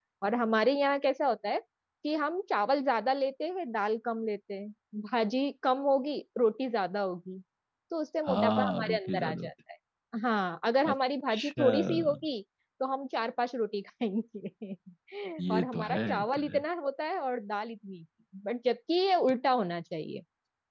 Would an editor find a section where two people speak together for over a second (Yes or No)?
Yes